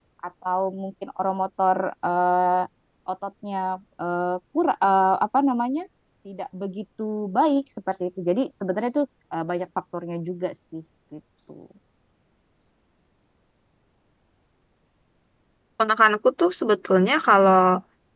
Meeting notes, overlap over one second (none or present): none